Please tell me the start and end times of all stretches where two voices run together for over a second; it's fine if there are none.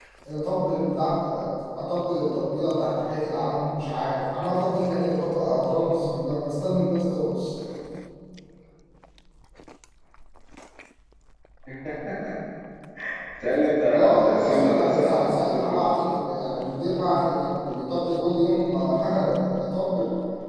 13.9-15.9

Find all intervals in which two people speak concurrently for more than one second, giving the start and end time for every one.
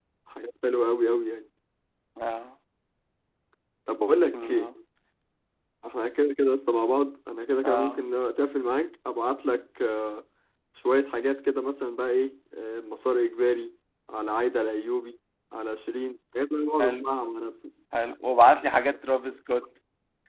none

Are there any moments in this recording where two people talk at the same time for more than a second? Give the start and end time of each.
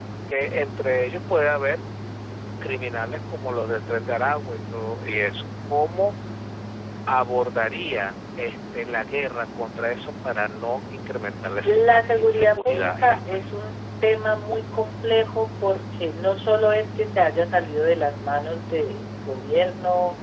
11.6-13.4

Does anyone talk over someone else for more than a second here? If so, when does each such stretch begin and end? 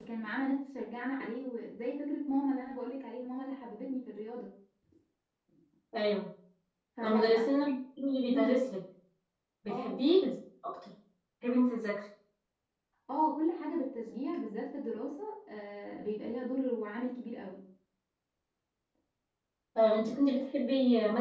none

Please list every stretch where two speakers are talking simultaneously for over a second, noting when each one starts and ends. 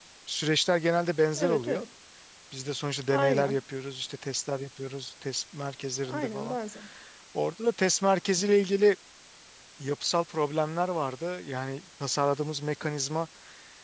none

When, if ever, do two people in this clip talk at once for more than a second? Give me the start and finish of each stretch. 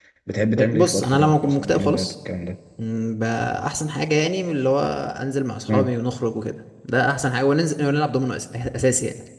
0.7-2.1

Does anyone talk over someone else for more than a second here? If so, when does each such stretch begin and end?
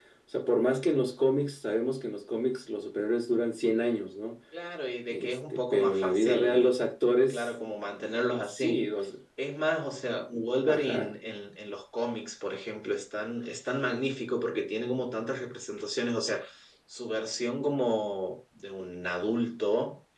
5.1-6.7

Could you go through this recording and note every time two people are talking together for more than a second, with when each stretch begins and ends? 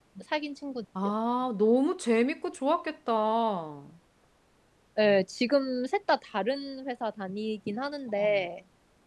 none

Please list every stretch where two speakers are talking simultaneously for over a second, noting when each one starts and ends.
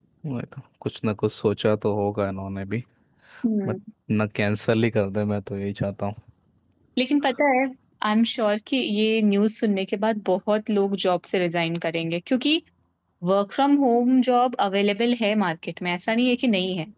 none

